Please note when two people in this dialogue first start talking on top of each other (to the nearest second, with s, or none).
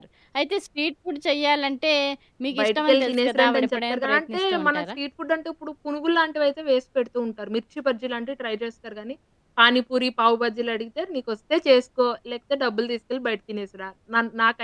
3 s